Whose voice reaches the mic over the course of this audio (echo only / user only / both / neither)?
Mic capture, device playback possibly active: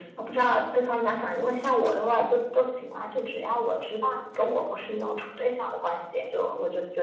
echo only